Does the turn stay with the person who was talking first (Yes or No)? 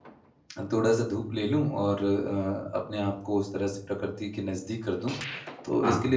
Yes